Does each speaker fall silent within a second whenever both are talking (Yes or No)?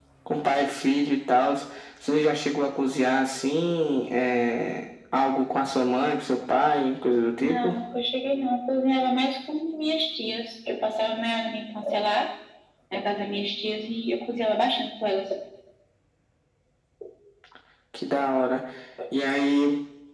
Yes